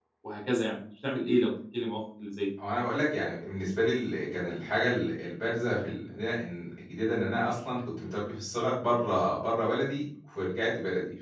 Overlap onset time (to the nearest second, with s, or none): none